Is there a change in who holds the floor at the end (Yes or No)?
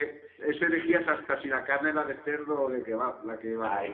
Yes